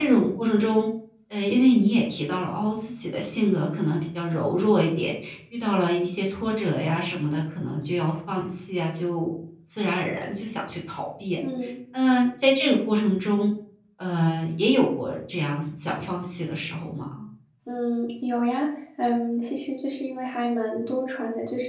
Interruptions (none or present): none